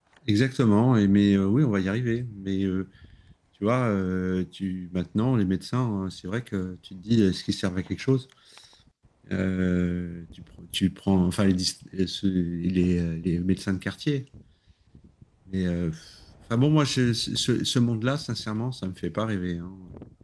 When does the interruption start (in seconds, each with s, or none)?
none